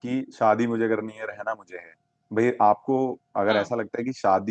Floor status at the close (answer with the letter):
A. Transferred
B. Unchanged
B